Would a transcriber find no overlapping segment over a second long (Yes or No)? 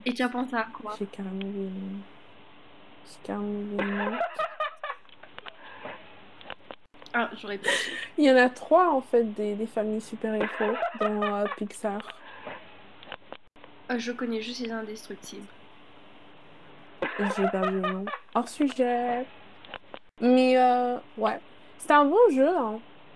Yes